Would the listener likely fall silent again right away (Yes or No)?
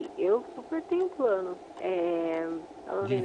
No